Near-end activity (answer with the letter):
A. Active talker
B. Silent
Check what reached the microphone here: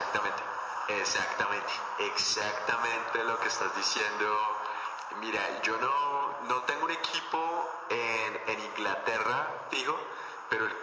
B